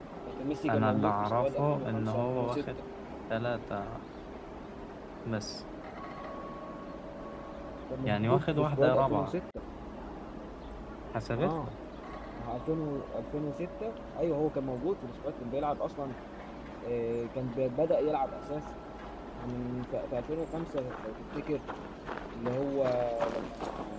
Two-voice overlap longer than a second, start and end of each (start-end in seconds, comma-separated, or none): 0.7-2.6, 8.0-9.3